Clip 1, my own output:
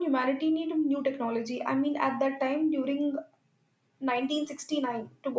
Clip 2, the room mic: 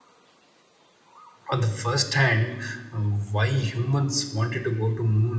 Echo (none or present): none